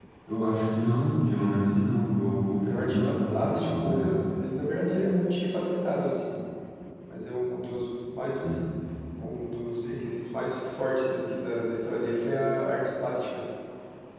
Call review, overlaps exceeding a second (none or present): present